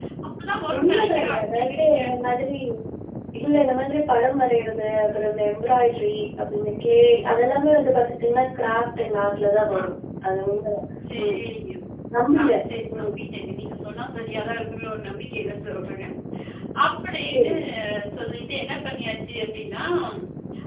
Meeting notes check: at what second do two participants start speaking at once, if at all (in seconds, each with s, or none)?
0.8 s